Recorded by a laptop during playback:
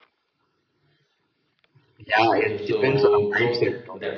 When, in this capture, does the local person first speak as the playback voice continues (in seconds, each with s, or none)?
2.3 s